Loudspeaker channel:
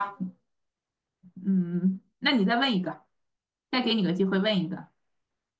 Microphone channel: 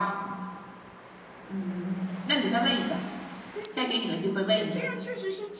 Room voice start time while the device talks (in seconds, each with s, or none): 2.3 s